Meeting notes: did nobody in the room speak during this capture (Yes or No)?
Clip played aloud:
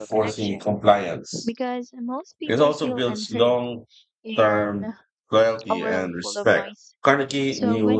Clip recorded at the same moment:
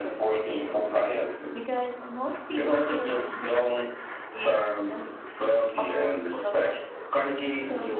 Yes